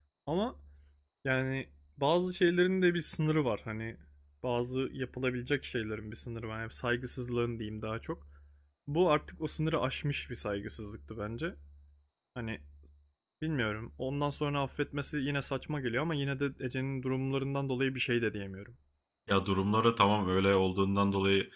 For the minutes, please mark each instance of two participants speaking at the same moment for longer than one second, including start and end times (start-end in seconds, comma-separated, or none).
none